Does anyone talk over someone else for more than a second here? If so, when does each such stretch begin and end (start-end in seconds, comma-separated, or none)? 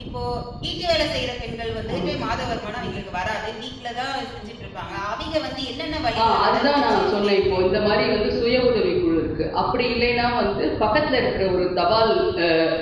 6.2-7.7